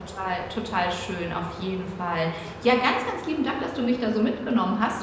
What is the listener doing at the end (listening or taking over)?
listening